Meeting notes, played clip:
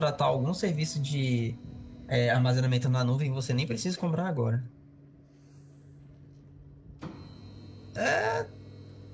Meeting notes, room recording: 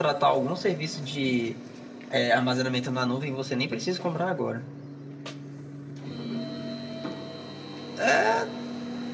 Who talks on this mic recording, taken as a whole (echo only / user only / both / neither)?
echo only